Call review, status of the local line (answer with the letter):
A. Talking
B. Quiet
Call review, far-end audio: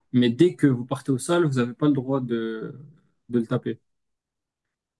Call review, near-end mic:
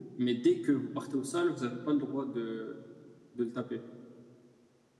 B